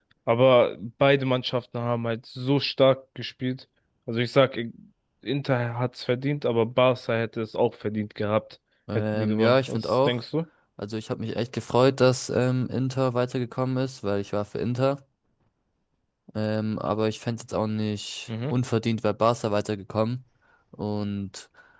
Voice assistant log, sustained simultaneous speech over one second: present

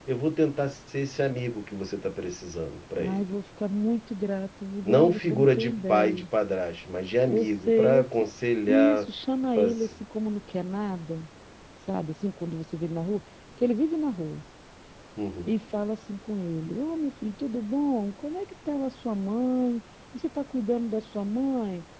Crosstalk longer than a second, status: present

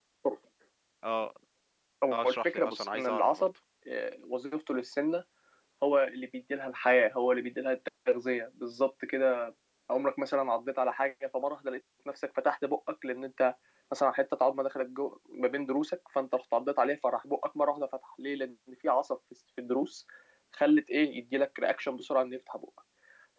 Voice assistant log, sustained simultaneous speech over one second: present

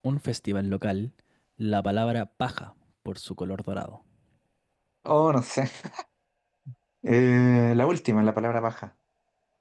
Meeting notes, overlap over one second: none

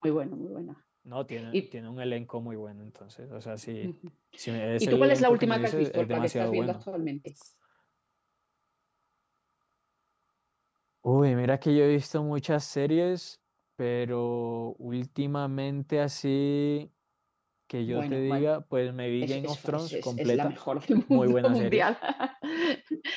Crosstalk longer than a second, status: present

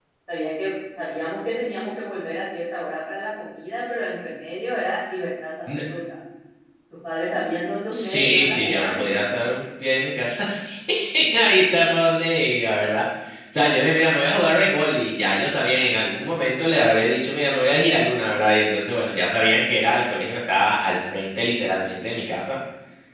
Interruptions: present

